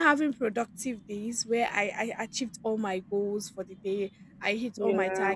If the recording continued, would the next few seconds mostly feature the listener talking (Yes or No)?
No